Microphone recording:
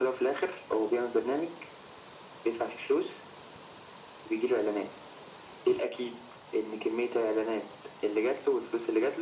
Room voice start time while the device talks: none

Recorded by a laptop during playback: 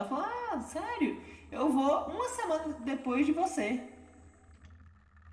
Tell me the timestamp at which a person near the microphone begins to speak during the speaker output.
none

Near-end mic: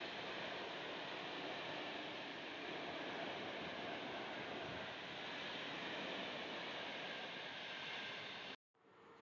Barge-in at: none

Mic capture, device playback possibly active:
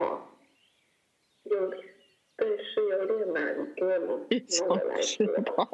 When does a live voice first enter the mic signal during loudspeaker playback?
4.3 s

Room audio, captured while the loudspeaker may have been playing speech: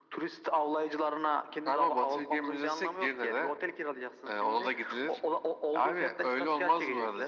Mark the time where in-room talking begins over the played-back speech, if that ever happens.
none

